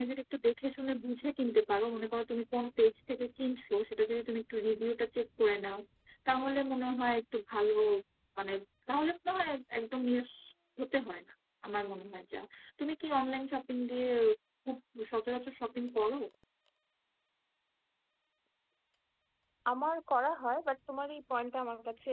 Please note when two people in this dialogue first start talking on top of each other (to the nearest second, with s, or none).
none